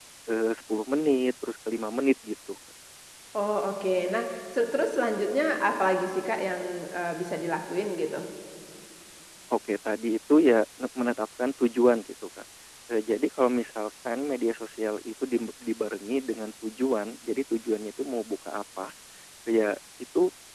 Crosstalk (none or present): none